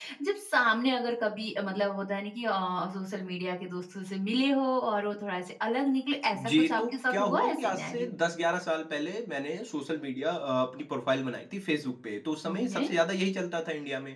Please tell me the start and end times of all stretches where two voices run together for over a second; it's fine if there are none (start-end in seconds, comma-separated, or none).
6.3-8.1